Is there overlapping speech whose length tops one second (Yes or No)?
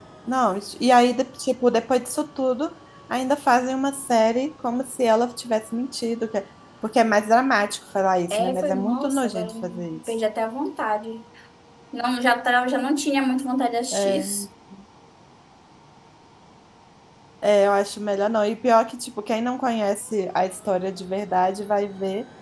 Yes